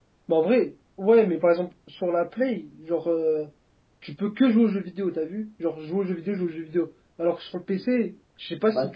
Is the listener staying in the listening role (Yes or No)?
Yes